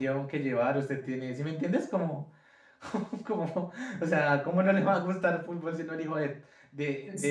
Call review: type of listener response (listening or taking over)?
taking over